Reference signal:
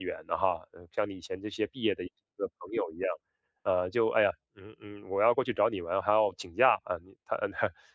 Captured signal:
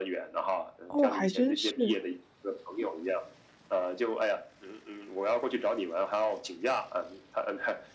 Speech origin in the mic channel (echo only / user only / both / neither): both